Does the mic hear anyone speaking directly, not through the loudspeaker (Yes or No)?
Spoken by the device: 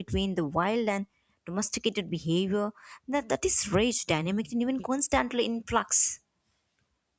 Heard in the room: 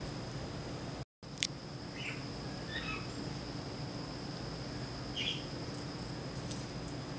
No